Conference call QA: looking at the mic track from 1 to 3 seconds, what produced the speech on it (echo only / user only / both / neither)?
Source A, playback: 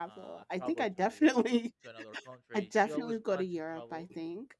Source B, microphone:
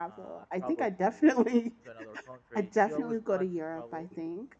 echo only